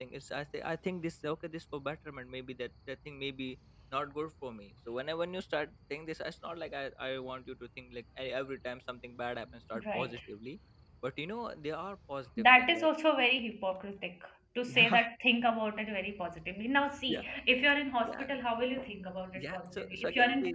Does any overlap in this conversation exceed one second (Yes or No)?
Yes